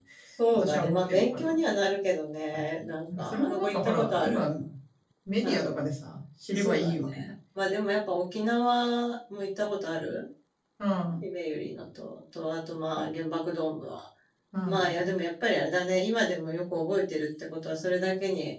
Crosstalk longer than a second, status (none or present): present